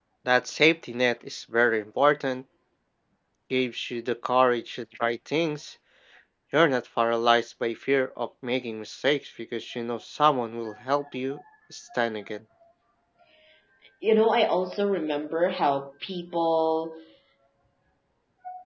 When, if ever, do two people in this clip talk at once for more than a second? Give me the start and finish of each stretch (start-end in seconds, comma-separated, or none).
none